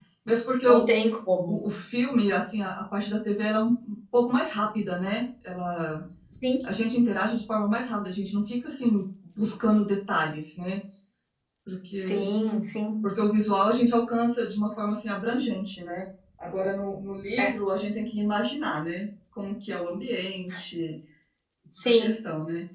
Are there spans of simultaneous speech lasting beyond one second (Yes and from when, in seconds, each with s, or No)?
No